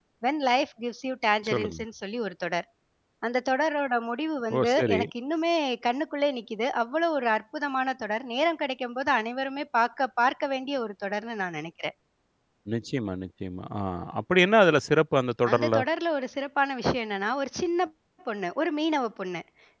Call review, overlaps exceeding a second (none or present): none